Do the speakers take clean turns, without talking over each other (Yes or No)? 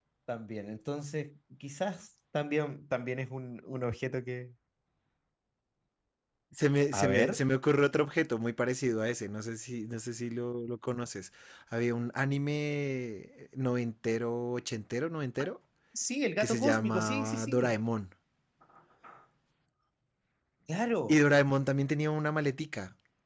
No